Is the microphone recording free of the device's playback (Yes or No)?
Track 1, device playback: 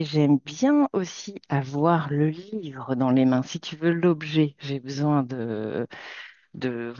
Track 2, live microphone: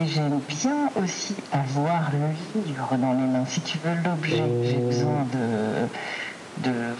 No